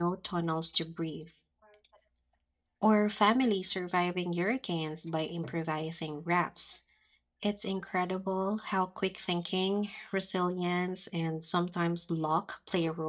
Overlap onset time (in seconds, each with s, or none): none